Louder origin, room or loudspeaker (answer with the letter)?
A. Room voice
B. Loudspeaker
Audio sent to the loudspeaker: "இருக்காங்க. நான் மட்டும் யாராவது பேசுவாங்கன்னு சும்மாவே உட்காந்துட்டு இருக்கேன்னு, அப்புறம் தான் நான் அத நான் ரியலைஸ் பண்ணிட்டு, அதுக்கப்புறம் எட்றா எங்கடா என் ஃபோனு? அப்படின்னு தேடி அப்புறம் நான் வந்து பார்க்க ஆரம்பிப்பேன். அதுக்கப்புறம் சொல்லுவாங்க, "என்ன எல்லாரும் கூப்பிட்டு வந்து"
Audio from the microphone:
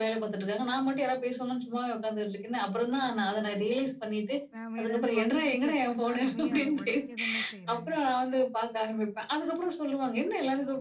B